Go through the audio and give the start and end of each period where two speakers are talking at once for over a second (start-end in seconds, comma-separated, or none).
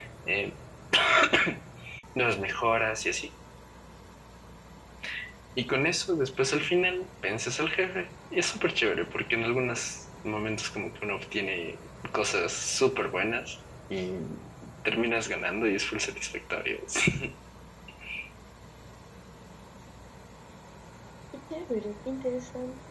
none